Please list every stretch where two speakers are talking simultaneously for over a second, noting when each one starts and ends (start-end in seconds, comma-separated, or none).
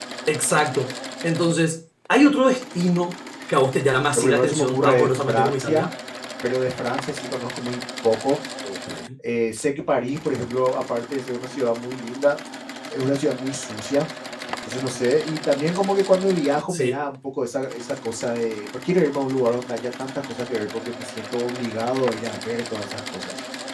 4.2-5.9